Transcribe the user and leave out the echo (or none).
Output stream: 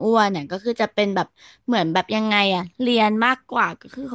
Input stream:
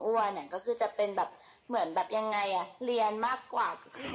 none